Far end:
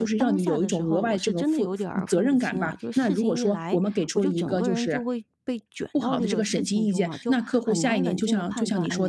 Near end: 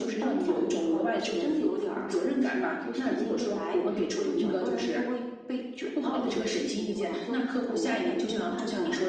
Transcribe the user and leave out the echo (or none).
也是哦